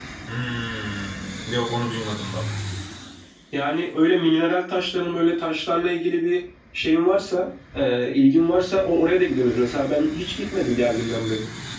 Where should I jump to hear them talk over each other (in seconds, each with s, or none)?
none